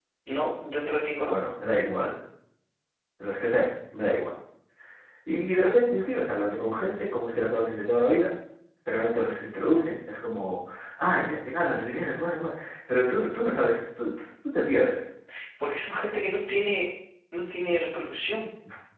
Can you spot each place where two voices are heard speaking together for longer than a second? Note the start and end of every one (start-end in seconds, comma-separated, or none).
none